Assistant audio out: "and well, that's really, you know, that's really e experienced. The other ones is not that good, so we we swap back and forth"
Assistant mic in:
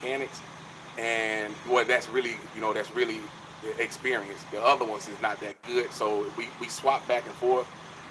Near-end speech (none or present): none